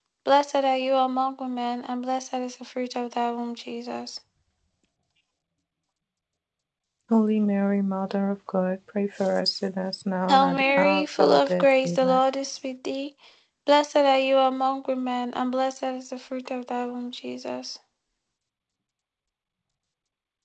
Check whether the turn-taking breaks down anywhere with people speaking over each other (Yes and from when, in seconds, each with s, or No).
Yes, from 10.3 s